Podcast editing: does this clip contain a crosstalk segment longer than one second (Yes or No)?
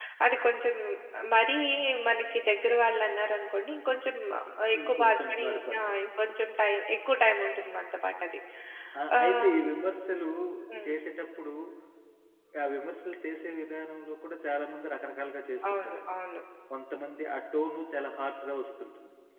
Yes